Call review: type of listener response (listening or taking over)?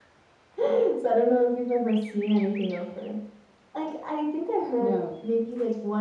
listening